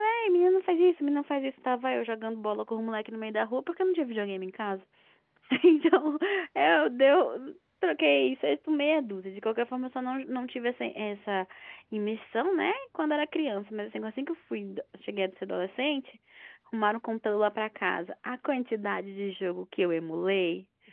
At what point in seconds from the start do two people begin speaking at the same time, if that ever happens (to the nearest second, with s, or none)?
none